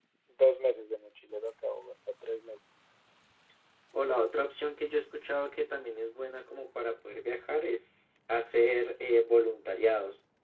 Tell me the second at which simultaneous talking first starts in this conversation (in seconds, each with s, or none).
none